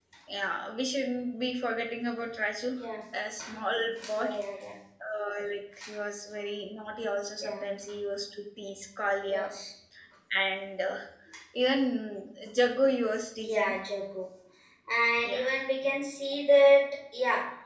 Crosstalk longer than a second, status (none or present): none